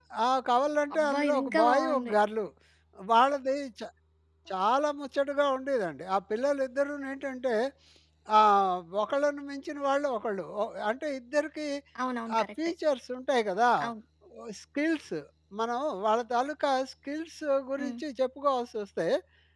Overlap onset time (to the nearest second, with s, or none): 1 s